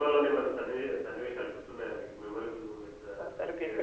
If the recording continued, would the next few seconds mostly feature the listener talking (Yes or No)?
Yes